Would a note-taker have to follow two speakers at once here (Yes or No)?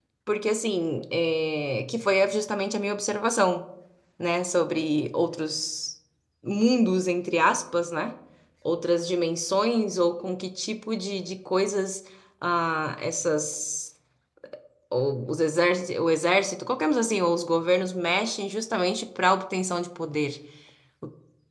No